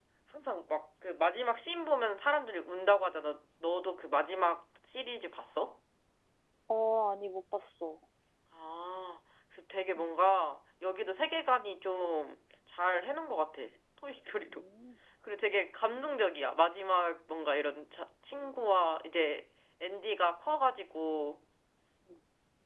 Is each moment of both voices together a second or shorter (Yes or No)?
Yes